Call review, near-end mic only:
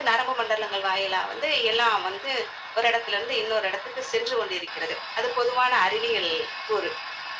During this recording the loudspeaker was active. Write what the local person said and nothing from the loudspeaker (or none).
none